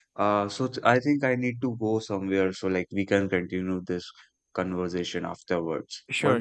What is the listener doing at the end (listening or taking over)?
taking over